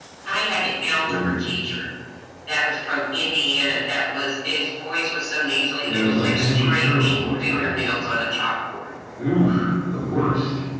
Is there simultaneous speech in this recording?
Yes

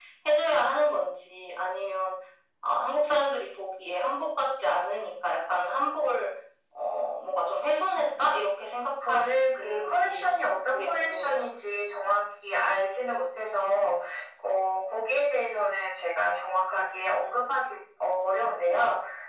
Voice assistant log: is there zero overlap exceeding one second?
No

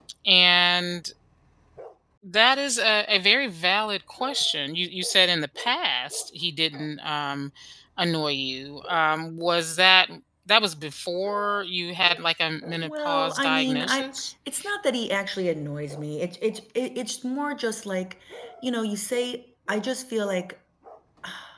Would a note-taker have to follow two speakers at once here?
Yes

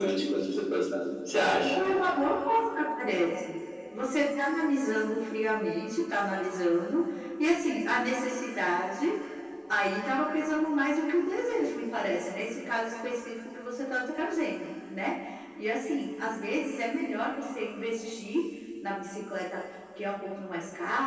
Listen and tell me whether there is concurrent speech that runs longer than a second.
No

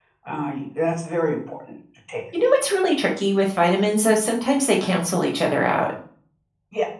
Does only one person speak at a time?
Yes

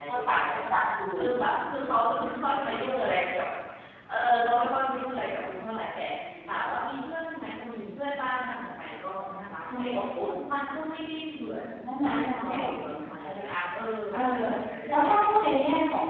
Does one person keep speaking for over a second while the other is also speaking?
Yes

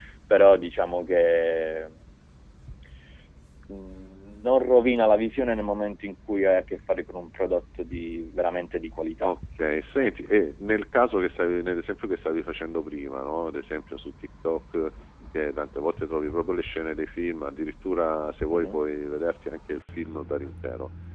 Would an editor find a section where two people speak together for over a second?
No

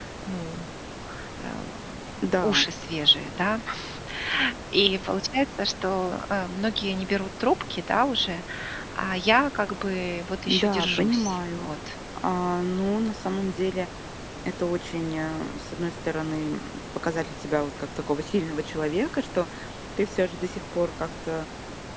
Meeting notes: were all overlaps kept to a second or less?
No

